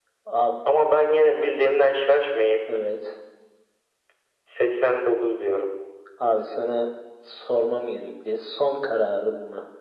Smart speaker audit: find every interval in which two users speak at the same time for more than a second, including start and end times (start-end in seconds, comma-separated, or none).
none